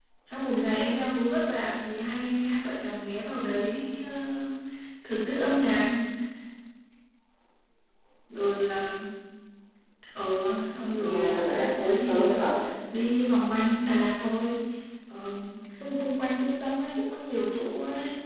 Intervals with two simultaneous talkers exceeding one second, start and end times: 11.0-12.4

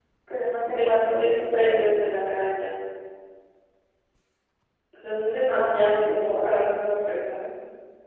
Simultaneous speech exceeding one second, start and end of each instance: 0.7-1.9, 5.4-6.6

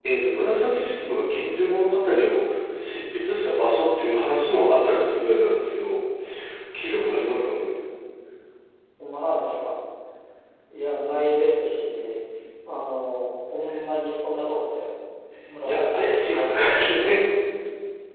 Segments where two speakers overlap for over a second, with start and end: 15.6-17.2

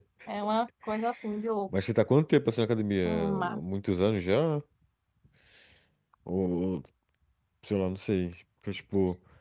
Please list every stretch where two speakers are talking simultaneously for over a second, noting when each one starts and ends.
none

